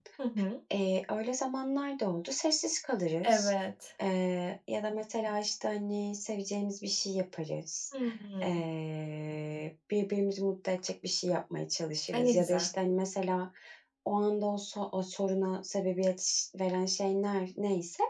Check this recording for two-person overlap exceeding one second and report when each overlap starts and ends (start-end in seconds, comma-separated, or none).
none